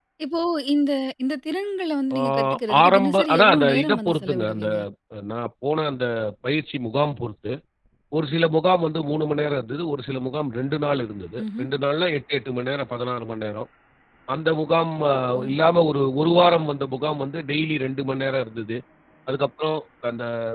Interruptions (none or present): present